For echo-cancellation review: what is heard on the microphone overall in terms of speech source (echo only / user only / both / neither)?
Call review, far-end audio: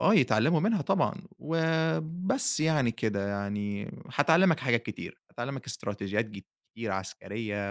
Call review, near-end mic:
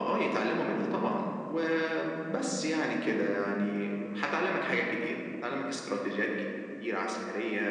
echo only